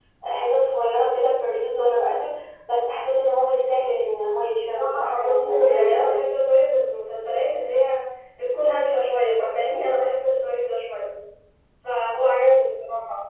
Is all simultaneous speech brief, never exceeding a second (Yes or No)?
No